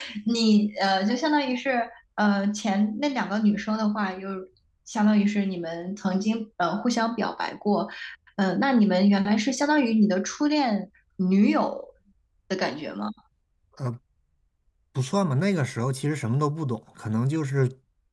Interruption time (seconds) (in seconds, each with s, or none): none